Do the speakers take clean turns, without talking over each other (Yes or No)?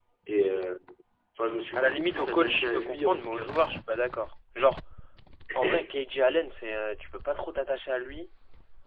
No